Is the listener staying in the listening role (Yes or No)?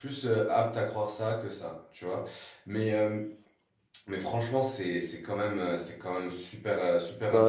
Yes